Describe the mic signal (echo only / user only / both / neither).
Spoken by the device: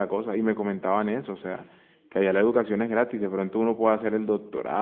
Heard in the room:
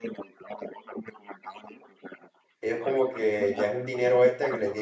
both